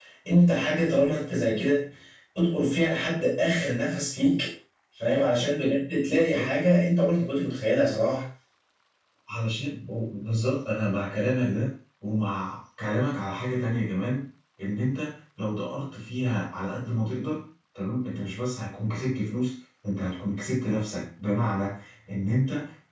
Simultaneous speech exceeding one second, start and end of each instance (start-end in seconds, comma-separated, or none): none